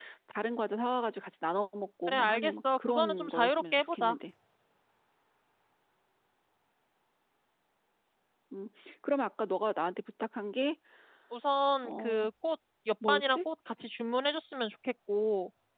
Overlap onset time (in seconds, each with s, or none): 2.1 s